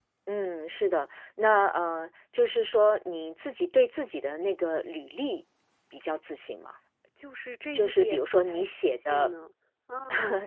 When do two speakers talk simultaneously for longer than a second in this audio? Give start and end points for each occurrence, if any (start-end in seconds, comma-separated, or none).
7.7-9.3